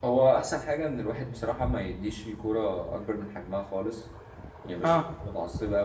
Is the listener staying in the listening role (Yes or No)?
Yes